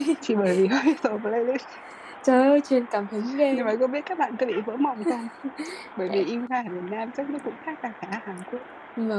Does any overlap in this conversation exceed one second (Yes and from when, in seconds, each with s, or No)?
No